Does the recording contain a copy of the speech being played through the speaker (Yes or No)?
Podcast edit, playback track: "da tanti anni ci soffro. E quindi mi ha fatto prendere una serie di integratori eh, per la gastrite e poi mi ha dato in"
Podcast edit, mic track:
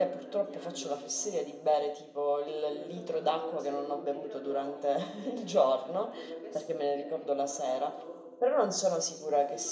Yes